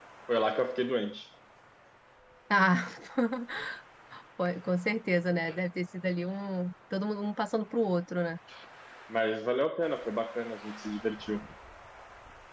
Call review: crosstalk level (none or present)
none